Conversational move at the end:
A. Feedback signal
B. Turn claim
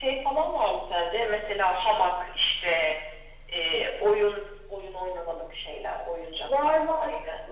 B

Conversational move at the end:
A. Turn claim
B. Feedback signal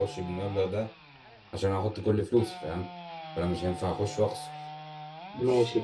A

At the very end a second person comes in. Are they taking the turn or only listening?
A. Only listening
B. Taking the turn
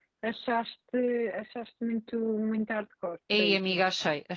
B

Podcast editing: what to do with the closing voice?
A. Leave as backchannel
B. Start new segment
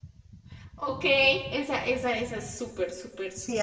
B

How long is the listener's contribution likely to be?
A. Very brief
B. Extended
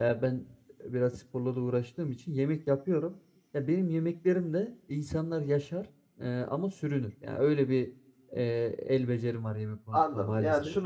B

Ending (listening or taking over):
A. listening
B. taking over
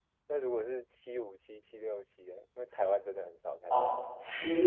B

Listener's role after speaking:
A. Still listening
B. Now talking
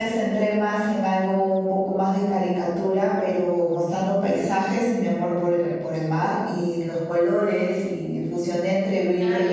B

